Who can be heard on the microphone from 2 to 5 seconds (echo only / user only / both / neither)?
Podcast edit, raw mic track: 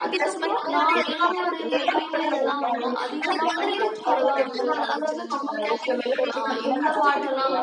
both